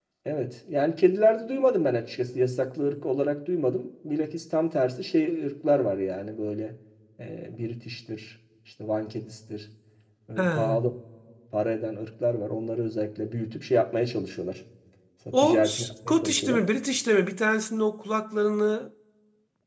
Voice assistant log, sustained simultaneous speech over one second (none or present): present